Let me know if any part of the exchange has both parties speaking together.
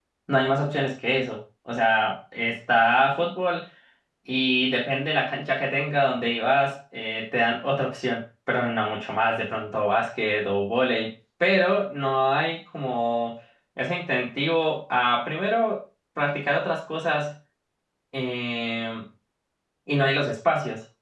No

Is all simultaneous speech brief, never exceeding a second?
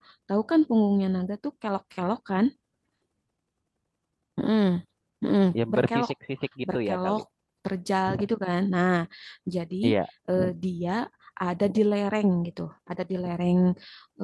Yes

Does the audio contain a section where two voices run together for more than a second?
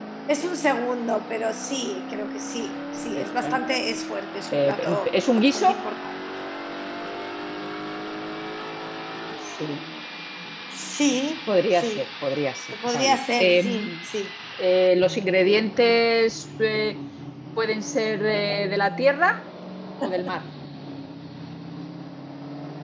Yes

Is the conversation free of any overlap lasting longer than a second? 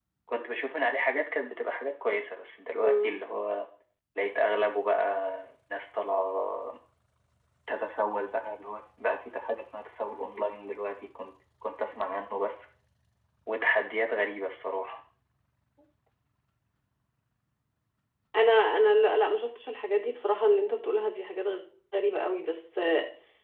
Yes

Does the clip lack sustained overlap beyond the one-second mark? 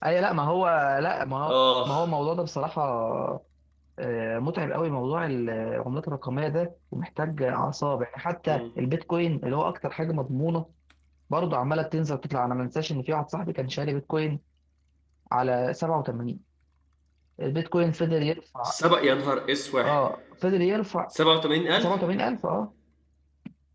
Yes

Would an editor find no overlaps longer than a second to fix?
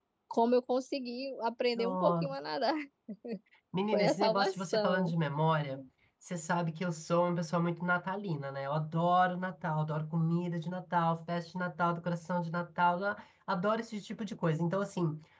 No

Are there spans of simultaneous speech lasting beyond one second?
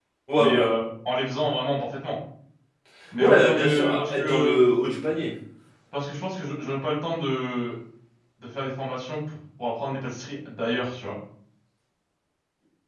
Yes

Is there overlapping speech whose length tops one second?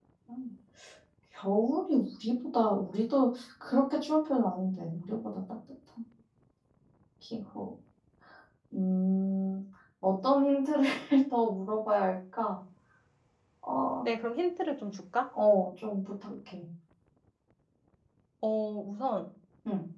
No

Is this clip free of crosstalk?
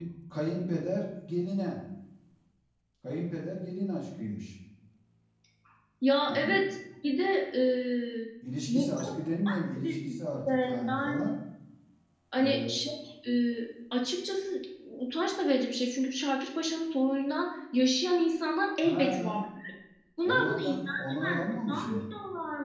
No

